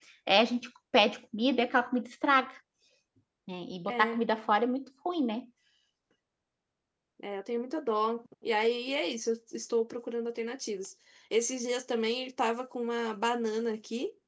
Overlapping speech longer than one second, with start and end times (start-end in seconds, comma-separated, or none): none